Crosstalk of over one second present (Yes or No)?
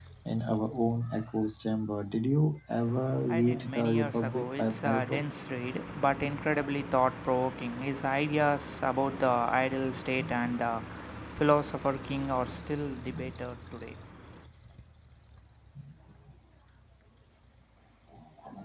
Yes